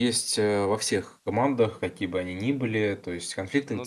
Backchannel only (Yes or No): Yes